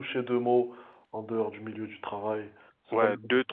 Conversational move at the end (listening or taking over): taking over